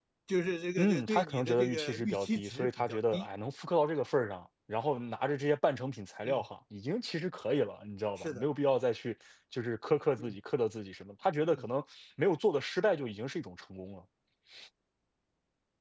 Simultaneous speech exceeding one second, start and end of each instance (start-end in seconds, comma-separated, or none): 0.8-3.3